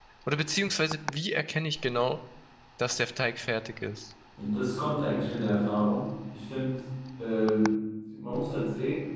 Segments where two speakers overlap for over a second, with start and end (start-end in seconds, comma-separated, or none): none